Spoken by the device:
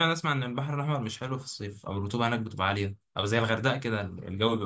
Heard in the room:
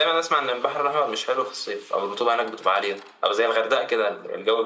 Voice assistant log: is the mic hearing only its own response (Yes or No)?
Yes